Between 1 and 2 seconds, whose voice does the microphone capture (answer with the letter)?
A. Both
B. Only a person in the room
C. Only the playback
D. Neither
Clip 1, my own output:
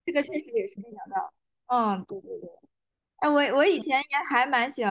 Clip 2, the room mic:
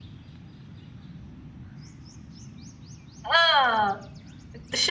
D